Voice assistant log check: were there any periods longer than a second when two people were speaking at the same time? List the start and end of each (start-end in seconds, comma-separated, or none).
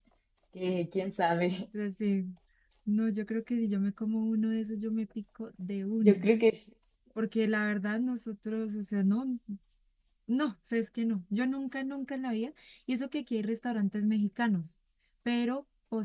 none